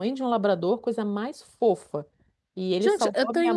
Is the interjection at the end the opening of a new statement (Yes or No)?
Yes